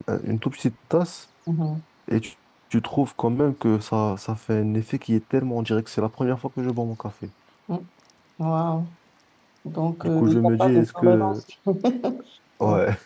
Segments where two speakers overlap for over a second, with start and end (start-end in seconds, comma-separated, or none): 10.2-11.4